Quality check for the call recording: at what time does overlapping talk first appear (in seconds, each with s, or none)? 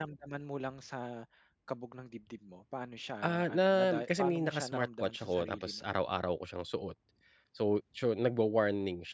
3.2 s